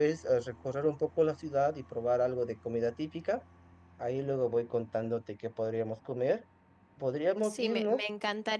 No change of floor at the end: No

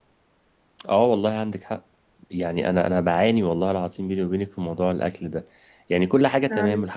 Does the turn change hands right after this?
No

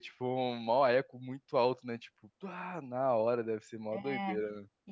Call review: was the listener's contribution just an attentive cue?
No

